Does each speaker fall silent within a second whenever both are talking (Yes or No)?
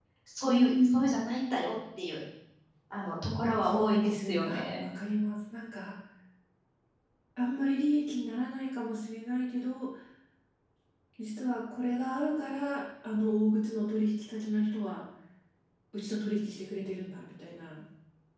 No